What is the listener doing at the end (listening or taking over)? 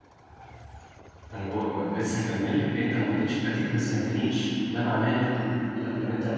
listening